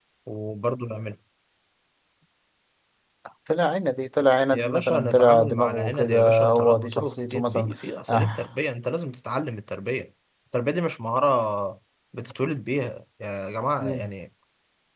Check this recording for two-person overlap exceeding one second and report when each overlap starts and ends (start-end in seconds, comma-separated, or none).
4.5-7.7